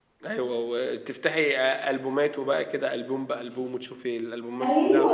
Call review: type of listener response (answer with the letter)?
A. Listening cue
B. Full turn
B